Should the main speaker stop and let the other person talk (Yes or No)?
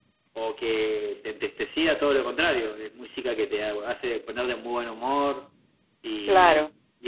Yes